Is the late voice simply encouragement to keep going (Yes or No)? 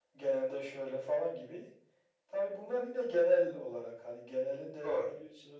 Yes